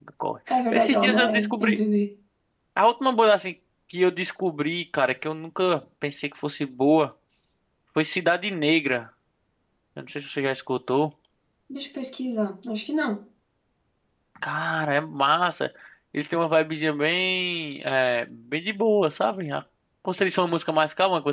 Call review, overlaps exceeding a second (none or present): present